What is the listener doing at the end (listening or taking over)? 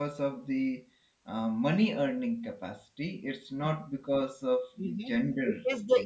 taking over